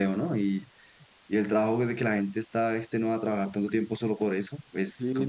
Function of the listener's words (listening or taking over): taking over